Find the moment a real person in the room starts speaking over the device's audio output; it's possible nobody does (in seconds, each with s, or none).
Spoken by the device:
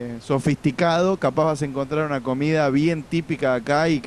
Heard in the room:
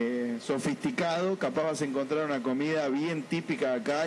none